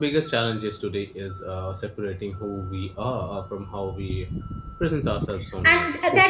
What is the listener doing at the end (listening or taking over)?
taking over